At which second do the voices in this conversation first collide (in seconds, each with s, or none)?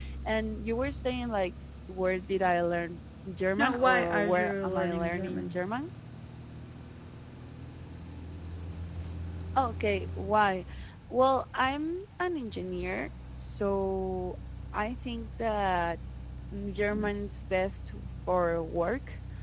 3.6 s